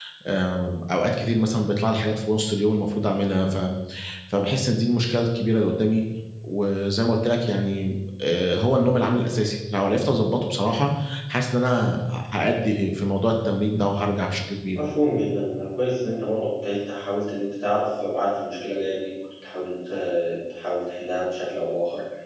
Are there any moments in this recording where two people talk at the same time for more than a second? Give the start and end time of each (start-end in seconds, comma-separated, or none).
none